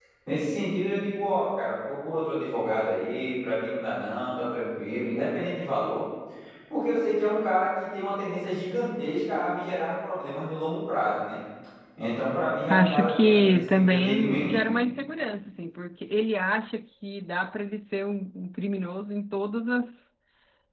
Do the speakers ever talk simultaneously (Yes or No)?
Yes